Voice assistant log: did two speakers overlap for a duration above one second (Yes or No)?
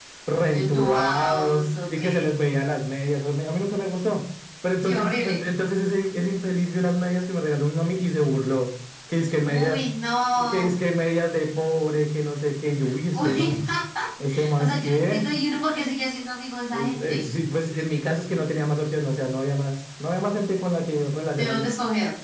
Yes